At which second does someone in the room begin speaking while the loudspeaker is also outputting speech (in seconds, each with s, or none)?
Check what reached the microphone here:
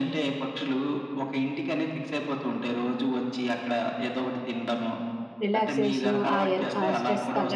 5.4 s